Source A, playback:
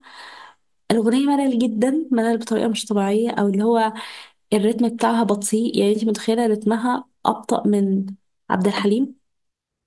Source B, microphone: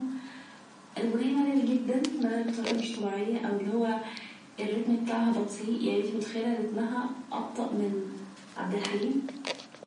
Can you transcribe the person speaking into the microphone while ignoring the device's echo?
none

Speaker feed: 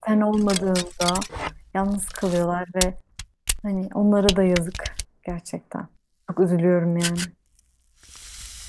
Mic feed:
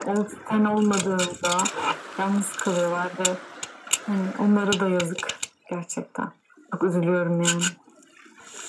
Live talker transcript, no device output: none

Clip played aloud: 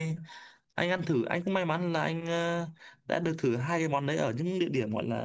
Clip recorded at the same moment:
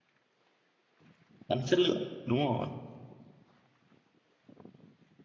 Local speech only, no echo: Gắn chất lượng đúng rồi

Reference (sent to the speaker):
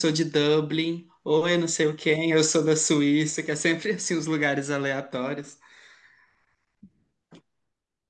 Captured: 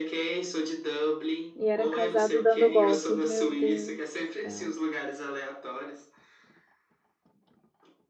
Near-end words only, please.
E era casado dando golpe. Meu Deus do céu.

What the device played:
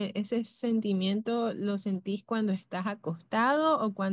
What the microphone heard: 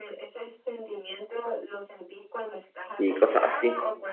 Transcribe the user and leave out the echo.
y cosas así.

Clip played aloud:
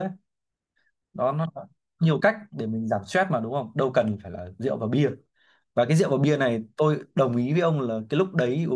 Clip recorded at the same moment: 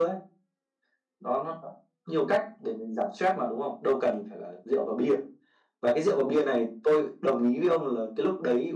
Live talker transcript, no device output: none

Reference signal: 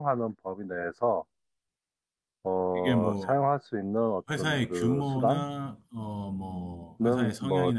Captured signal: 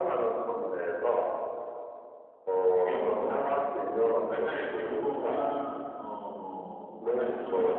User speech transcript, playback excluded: none

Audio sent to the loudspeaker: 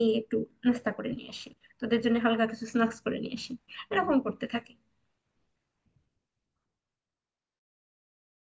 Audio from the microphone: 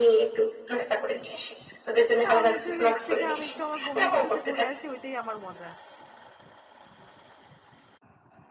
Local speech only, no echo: তা আমি হচ্ছে যে এর থেকে আমি একটু আমার বন্ধুদের সাথে ঘুরে আসি ওইটাই আমার মজা

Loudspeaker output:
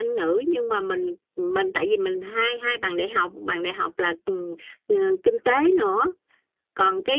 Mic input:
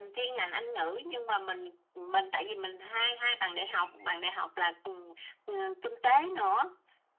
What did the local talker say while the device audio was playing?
none

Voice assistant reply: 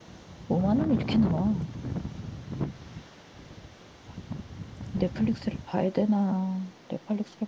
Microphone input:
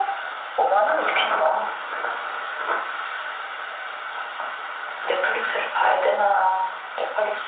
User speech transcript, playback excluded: none

